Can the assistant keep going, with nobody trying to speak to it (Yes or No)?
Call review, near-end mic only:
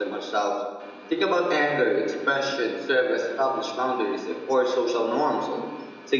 No